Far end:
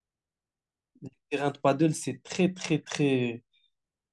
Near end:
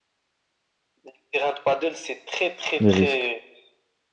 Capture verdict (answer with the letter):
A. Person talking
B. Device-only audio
A